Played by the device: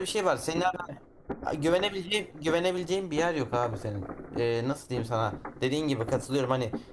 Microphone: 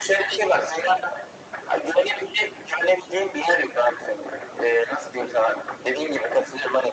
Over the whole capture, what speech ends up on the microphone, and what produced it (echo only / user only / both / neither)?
echo only